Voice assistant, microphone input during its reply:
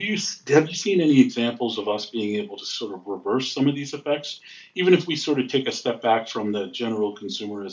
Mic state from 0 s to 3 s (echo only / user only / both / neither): user only